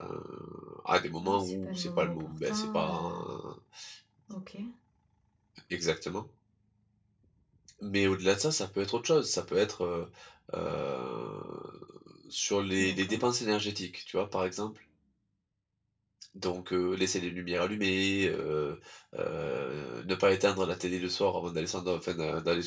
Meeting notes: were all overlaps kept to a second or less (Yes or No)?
No